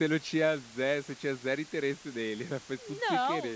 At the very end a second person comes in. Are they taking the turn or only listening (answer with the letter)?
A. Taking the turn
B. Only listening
A